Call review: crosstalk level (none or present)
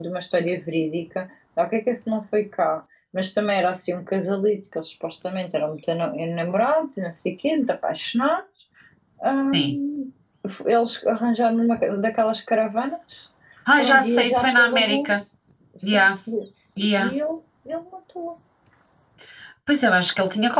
present